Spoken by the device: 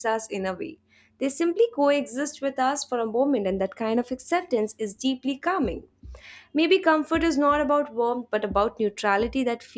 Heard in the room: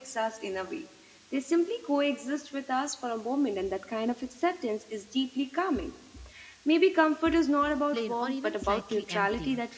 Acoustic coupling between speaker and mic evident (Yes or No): Yes